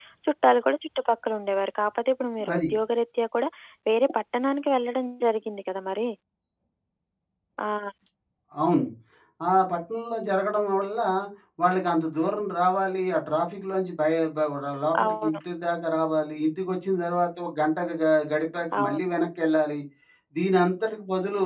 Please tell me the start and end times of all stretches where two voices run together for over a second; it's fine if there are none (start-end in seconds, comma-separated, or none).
none